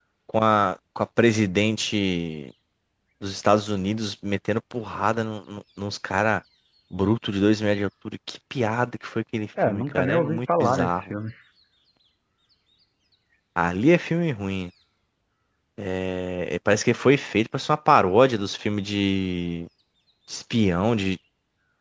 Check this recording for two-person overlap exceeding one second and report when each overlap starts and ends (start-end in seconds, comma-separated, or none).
9.7-11.1